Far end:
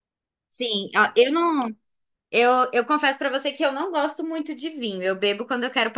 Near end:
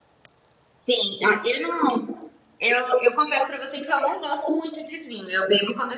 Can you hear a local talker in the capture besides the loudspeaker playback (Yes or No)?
No